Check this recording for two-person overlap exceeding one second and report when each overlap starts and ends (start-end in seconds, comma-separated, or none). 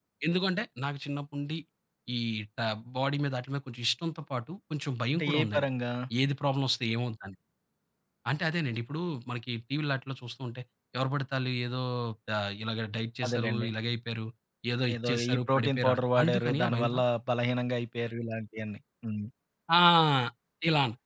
14.9-17.0